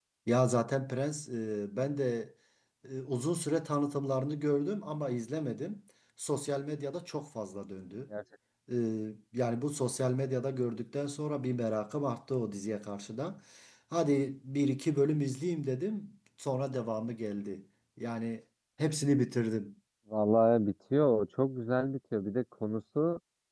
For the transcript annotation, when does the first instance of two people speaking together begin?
none

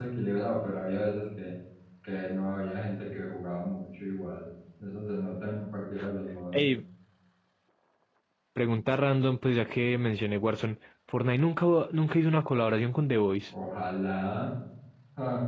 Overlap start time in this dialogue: none

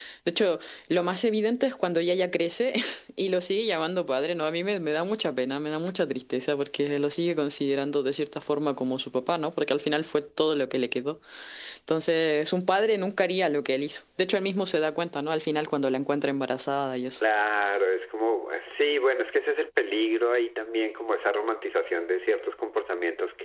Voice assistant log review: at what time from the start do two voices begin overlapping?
none

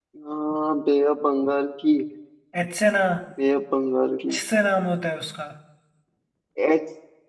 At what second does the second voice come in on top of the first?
none

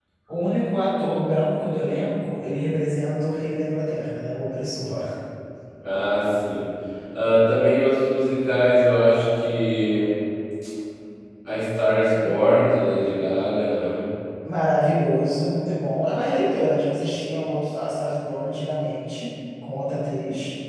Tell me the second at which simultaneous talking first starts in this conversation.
none

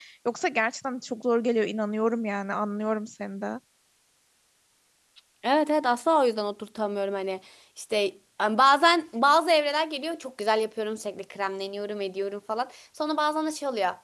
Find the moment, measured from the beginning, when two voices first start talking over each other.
none

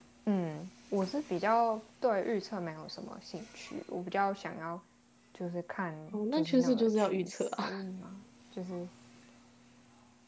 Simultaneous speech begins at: 6.1 s

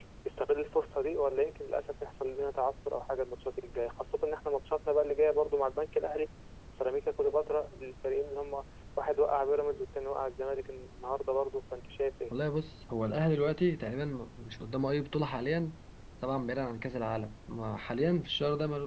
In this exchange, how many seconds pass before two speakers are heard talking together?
none

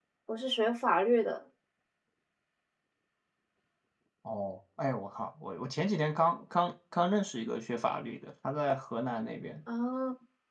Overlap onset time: none

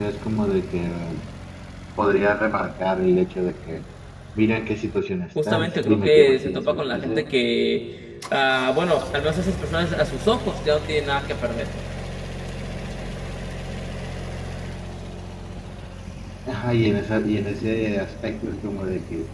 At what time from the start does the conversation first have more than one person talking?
5.4 s

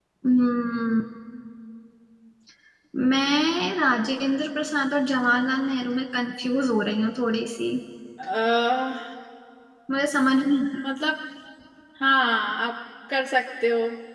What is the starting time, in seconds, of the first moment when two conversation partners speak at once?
none

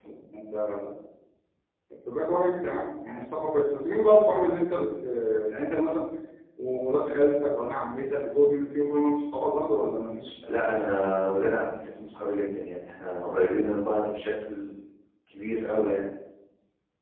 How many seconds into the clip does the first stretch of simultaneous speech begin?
none

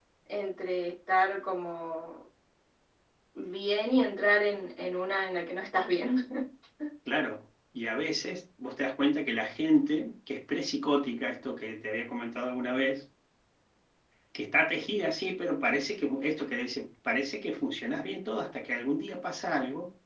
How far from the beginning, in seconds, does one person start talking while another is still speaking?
none

